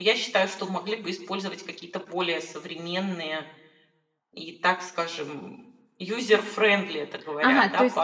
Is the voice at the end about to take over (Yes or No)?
Yes